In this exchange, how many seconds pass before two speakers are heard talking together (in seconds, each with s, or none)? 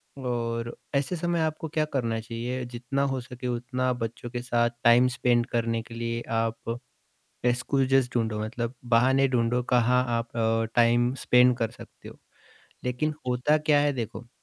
none